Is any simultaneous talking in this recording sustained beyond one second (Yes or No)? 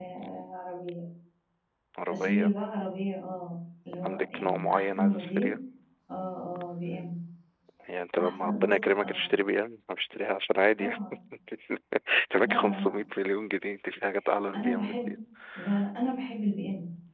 Yes